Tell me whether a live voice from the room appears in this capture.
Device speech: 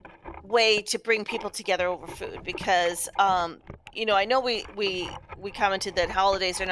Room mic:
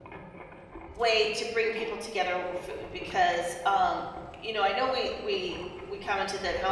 No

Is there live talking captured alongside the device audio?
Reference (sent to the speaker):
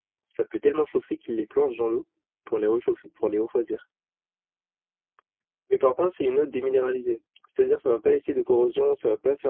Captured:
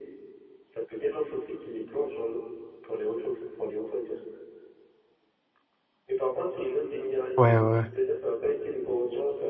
Yes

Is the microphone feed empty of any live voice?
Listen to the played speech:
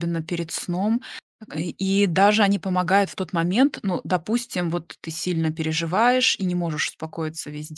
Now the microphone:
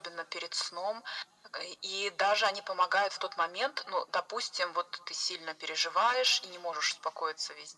Yes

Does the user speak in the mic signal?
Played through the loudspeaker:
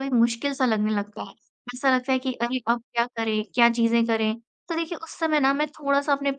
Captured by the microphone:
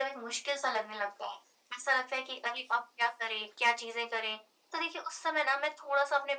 No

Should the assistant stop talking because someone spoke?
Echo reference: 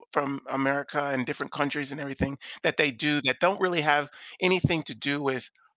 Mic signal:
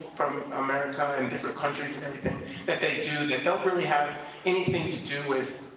No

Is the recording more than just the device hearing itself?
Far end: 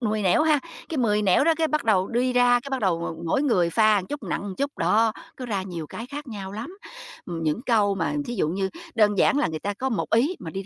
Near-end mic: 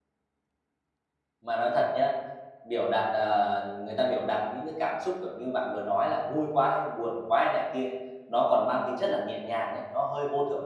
Yes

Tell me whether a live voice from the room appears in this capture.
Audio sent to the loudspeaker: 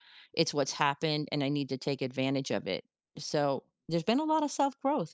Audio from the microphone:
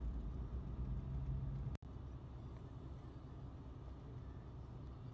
No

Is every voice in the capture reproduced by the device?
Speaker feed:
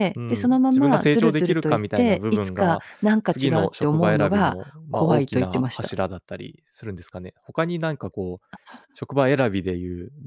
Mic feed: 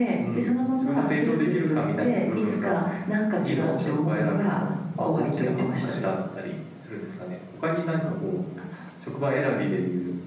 Yes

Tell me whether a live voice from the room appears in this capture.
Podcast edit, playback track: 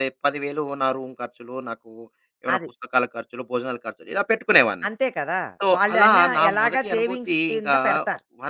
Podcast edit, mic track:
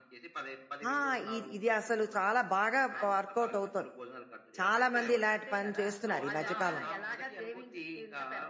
Yes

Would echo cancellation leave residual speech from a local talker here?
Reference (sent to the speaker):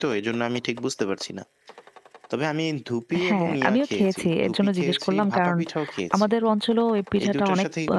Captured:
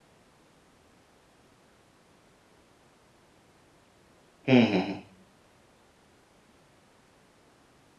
Yes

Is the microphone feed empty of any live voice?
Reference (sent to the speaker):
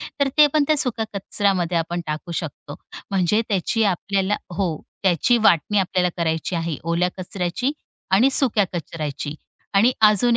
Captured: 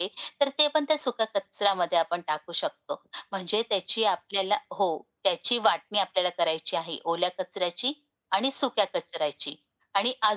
Yes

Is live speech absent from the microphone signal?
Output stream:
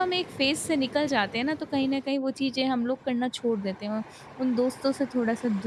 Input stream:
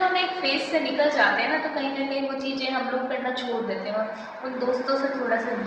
Yes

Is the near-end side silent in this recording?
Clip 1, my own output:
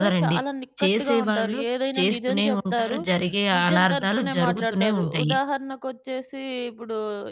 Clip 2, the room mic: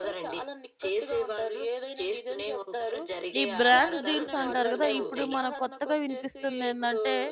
No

